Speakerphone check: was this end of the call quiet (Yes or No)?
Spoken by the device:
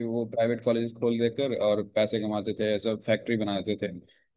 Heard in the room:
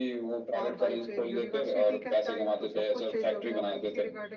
No